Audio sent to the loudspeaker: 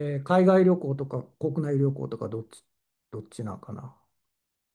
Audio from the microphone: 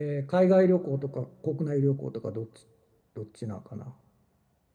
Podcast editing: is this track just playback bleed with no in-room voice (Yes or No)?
Yes